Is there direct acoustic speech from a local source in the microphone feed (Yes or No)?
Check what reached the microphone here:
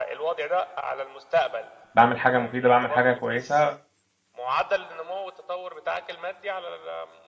Yes